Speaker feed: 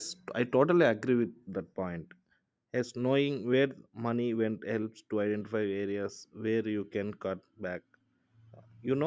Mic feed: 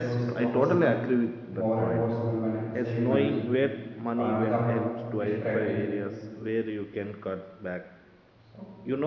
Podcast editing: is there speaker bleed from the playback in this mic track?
Yes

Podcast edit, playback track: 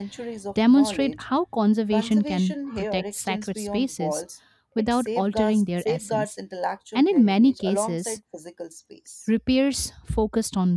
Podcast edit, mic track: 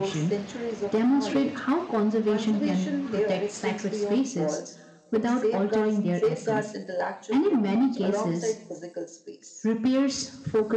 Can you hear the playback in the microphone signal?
Yes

